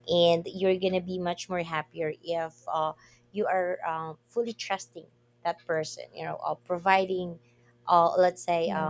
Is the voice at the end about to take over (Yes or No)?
Yes